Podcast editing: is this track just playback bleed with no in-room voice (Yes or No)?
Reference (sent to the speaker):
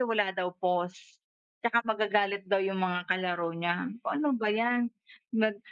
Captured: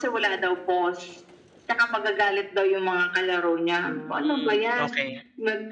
No